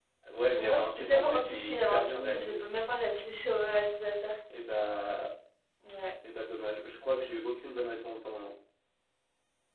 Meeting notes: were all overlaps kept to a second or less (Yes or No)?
No